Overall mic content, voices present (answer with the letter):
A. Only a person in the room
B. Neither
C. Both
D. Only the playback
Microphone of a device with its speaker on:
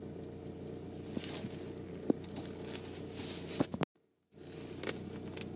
B